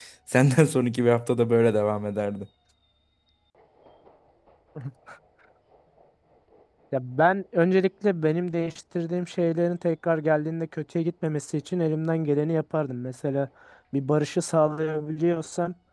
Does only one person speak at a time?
Yes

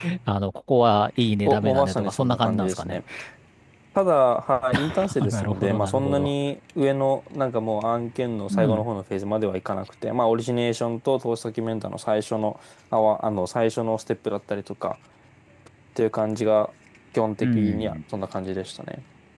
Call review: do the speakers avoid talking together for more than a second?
No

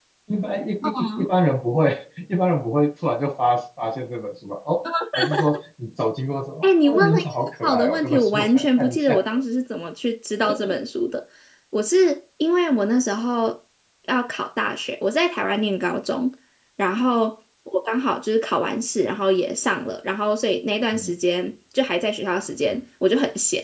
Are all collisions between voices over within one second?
No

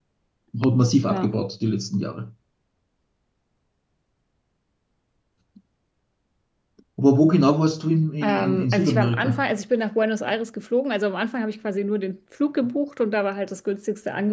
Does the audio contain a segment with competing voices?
Yes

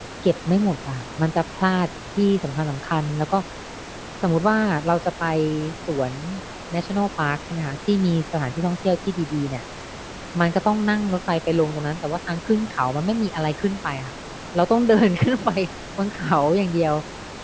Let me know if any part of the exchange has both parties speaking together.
No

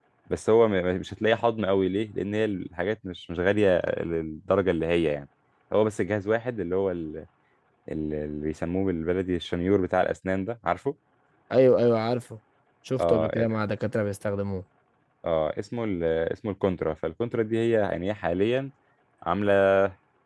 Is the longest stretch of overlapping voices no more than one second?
Yes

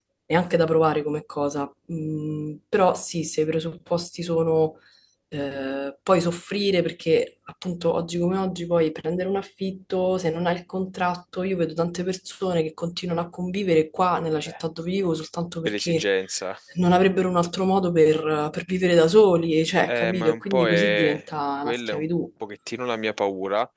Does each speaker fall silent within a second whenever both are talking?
No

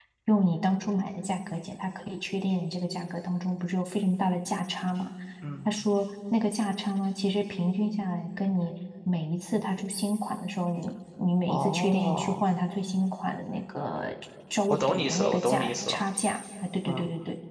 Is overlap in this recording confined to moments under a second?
No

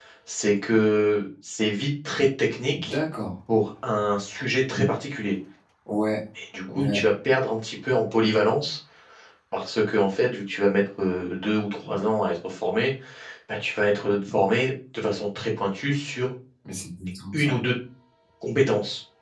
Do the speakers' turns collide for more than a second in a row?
No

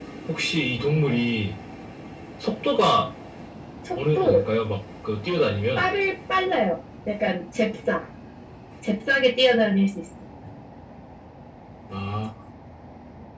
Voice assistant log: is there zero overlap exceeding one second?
Yes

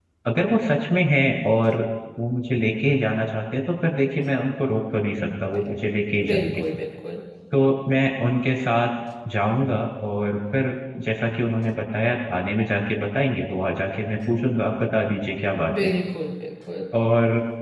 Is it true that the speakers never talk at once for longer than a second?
Yes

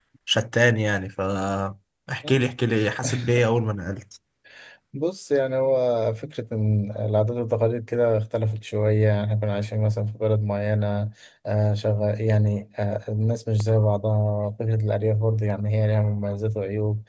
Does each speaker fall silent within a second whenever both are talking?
Yes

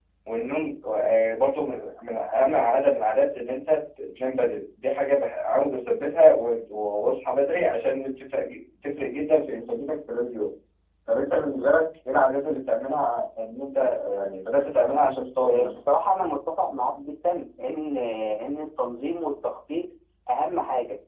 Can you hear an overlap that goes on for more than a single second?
No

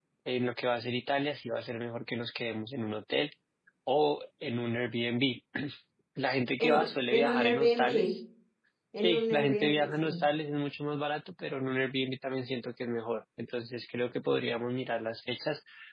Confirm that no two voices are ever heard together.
No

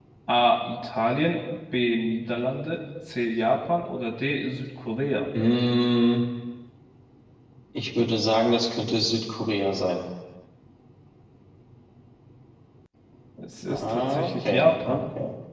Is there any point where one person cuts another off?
Yes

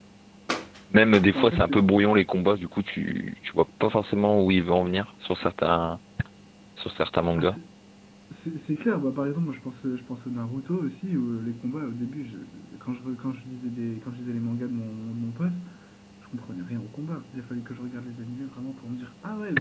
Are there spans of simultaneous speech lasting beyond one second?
No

